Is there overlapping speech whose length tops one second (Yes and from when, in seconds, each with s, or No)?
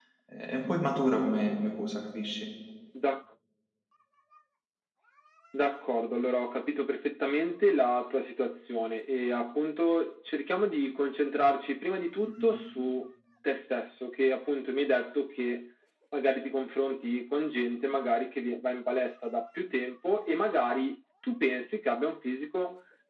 No